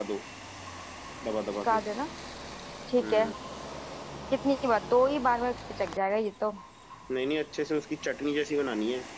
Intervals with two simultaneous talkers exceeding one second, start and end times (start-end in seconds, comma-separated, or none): none